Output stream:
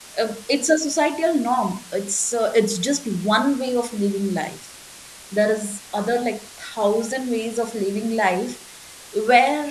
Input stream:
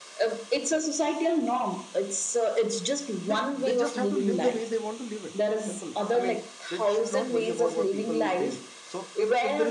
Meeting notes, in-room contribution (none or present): present